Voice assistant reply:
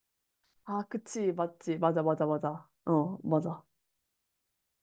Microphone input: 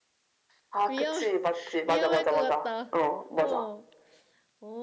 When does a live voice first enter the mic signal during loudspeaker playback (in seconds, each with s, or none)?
0.9 s